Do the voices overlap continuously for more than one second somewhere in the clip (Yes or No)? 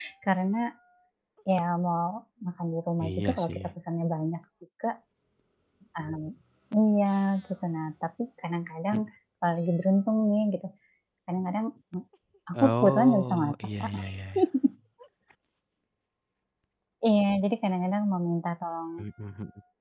Yes